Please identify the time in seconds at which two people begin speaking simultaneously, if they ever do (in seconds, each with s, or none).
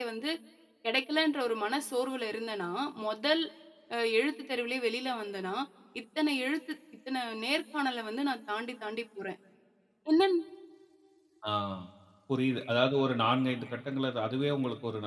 none